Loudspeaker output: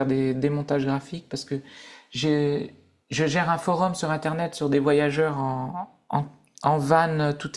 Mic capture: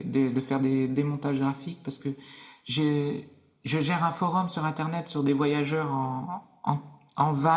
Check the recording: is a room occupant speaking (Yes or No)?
No